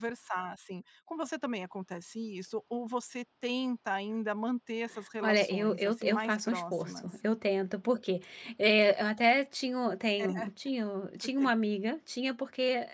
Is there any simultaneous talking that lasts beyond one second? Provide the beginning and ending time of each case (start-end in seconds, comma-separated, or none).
5.2-7.1